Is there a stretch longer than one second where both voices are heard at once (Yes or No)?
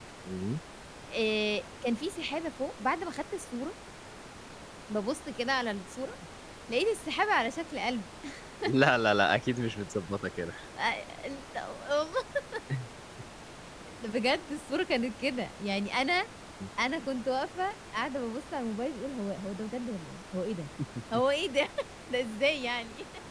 No